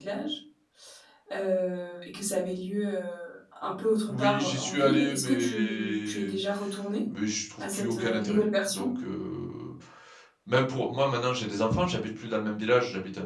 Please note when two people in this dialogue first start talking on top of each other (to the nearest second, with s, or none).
4 s